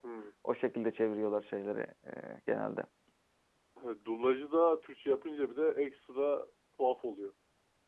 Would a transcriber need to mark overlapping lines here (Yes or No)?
No